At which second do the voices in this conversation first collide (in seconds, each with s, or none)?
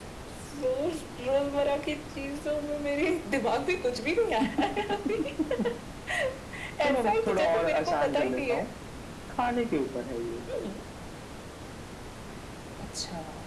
6.8 s